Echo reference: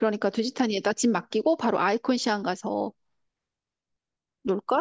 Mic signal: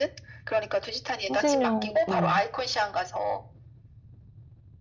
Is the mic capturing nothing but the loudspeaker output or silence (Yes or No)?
No